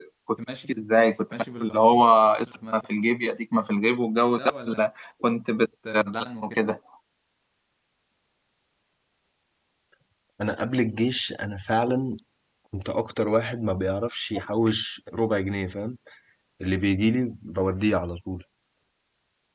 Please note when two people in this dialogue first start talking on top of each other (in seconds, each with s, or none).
none